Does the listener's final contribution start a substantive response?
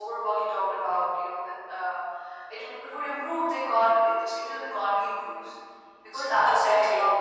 No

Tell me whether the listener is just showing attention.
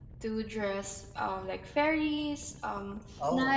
Yes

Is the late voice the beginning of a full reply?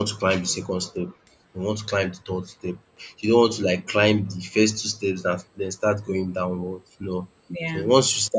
No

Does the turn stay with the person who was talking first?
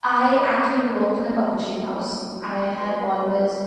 Yes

